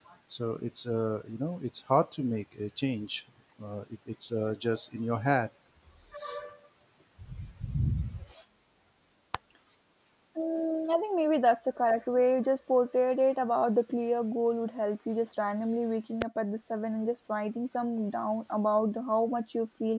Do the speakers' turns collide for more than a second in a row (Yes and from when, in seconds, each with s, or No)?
No